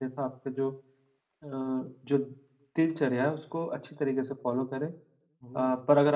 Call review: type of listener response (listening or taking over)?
listening